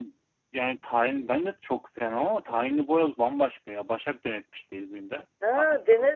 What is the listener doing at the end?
taking over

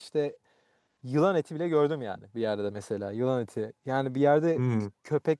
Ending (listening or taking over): listening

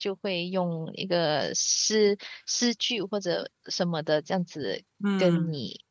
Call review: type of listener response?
listening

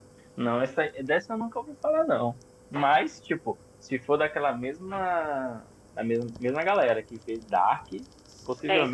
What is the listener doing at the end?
listening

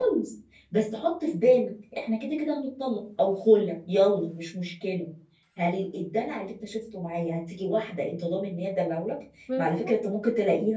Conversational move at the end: listening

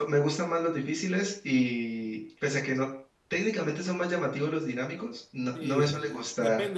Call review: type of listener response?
taking over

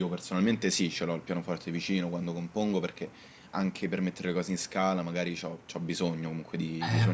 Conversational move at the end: taking over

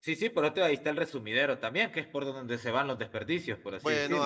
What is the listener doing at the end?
taking over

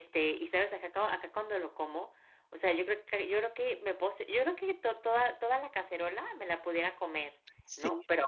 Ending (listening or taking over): listening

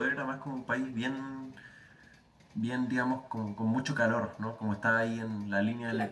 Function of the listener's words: taking over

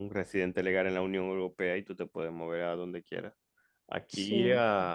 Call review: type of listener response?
listening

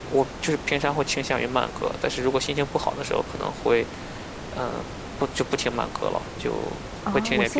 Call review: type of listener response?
taking over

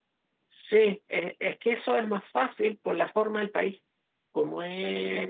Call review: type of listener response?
listening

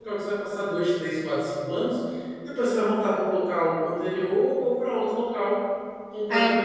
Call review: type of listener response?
listening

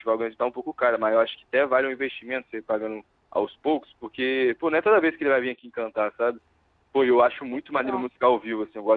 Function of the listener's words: listening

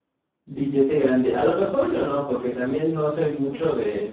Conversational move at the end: listening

